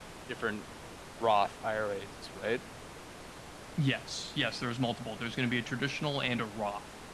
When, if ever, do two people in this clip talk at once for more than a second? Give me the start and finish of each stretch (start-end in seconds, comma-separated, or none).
none